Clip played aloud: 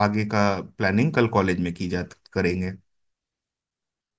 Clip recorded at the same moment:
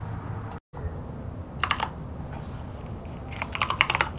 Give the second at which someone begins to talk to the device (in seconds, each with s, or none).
none